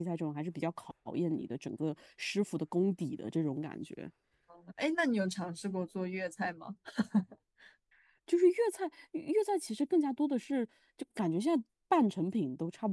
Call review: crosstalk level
none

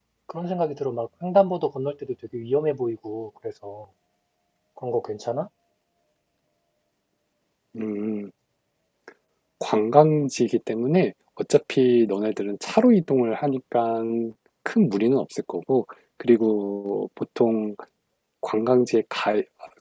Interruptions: none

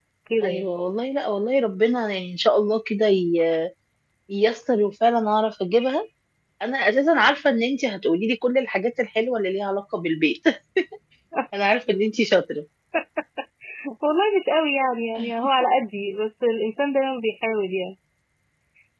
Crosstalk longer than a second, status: none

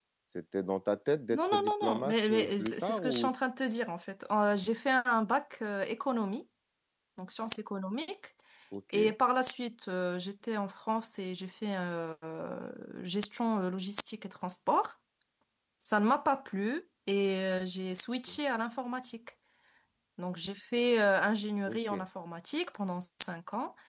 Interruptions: present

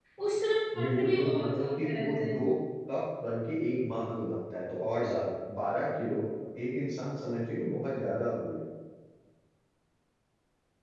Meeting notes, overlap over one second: present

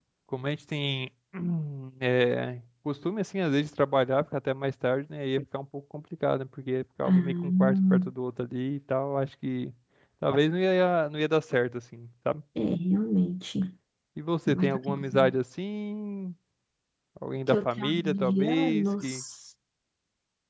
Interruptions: present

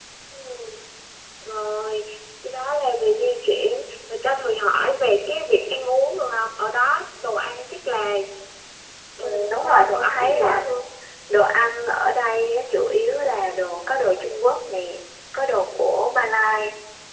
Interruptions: present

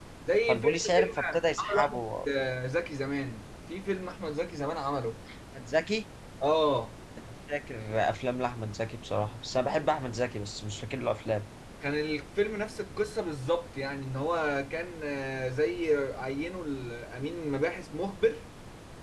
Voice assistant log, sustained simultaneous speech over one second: present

